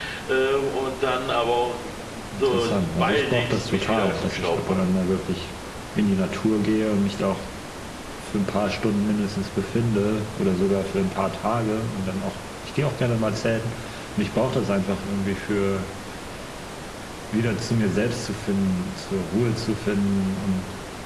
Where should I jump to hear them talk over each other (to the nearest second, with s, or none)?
2 s